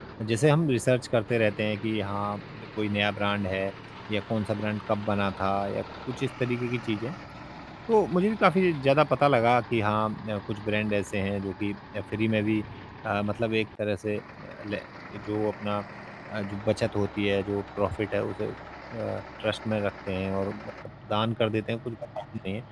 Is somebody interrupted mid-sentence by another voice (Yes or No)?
No